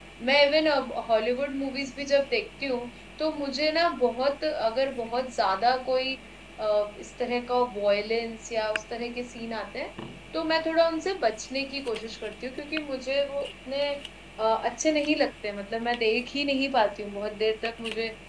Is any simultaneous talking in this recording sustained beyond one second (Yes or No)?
No